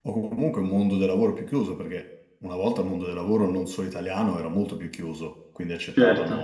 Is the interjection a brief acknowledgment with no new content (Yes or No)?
Yes